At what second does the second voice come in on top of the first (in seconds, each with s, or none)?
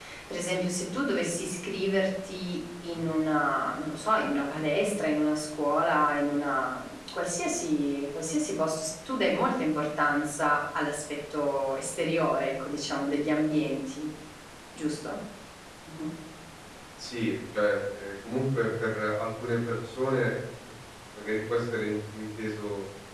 none